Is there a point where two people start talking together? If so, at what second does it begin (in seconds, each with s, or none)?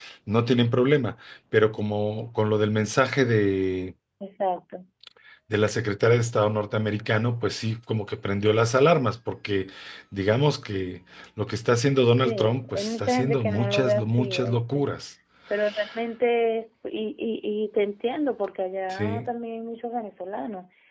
12.2 s